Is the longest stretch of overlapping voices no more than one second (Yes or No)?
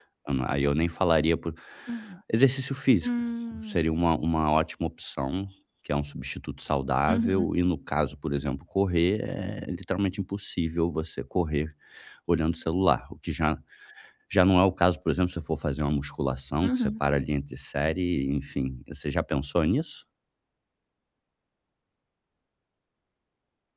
Yes